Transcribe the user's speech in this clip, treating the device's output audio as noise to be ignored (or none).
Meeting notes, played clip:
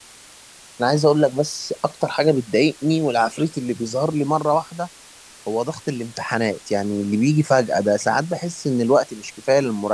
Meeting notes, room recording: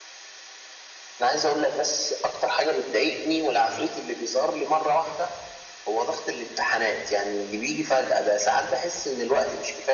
none